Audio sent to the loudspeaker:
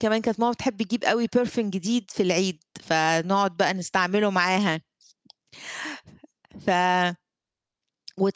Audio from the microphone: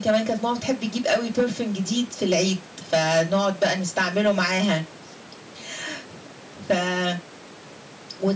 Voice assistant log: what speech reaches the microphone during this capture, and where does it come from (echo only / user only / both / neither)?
echo only